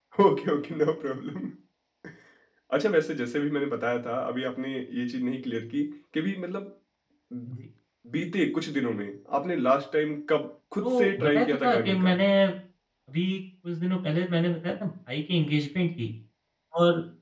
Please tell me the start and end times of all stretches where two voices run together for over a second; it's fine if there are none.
10.8-12.2

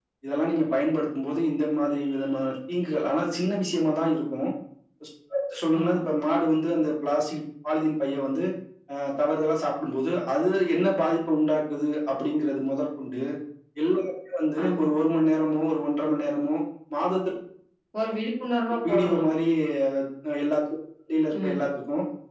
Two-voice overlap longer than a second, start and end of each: none

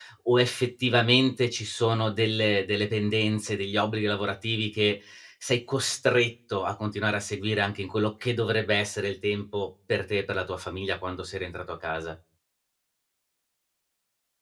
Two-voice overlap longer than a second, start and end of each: none

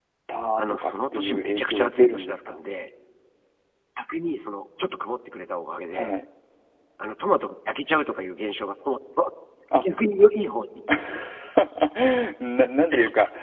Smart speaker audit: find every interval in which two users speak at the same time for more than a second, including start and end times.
0.6-2.5

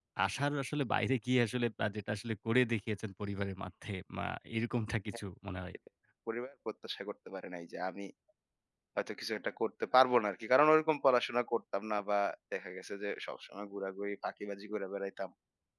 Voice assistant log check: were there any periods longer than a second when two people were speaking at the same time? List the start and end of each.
none

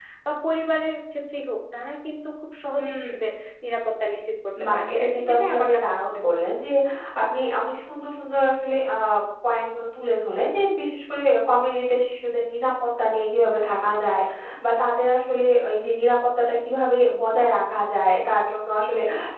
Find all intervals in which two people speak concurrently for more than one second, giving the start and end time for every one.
4.7-6.3

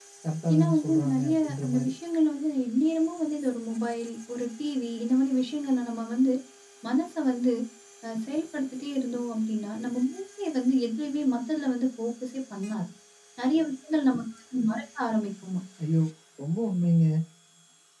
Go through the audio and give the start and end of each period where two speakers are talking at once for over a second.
0.5-1.9

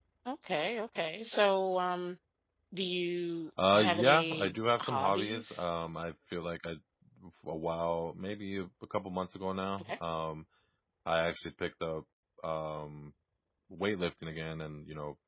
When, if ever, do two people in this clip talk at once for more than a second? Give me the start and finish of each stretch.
3.7-5.7

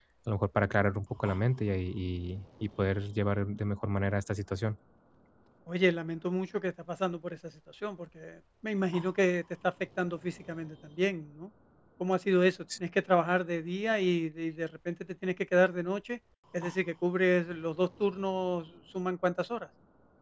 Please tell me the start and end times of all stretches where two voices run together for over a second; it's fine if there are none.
none

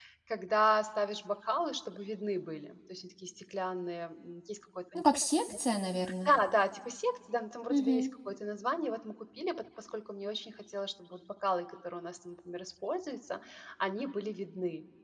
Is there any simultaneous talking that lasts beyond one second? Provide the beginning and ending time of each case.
none

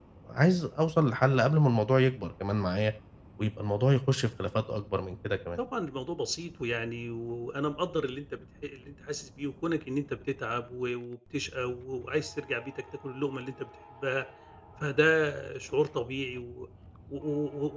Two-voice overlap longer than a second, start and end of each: none

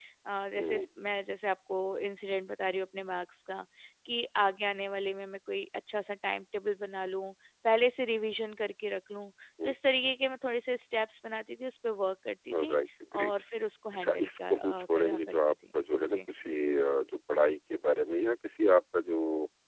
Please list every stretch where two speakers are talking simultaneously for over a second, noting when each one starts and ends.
13.9-15.6

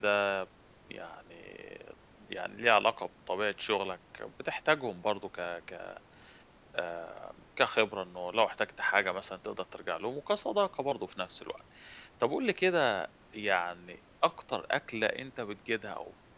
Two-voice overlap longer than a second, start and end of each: none

